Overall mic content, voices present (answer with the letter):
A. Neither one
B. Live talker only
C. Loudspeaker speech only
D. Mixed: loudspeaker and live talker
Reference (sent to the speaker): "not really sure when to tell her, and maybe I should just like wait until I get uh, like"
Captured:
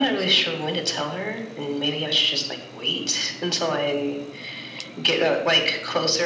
C